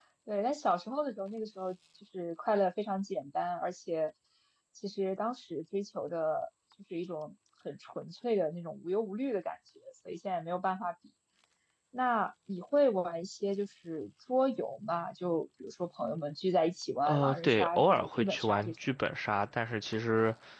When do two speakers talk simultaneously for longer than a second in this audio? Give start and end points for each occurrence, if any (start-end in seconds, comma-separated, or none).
17.1-18.8